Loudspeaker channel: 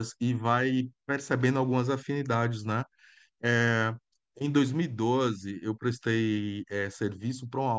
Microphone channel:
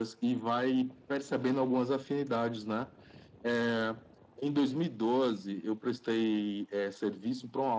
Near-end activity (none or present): none